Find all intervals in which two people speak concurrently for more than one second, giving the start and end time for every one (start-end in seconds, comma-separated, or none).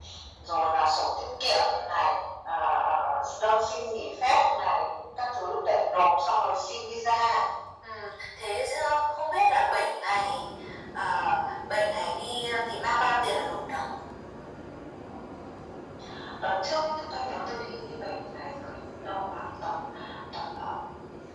none